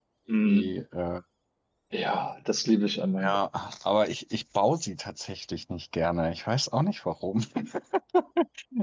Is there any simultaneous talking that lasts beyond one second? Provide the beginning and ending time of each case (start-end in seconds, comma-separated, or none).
none